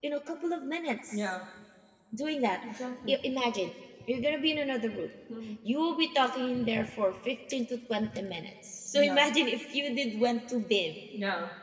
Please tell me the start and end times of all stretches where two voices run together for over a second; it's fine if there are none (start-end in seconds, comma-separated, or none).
none